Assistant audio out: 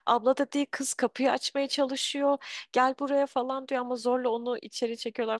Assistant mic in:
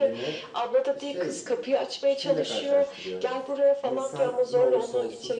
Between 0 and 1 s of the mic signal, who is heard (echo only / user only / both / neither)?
both